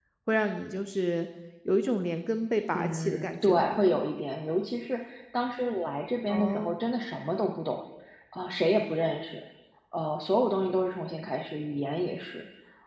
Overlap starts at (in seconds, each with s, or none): 2.7 s